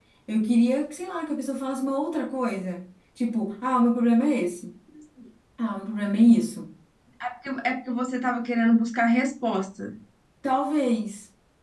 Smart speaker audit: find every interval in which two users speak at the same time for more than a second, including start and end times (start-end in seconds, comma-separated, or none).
none